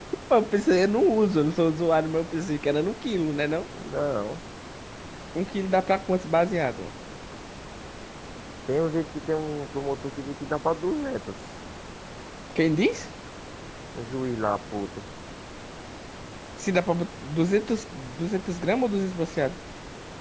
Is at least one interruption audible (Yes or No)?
No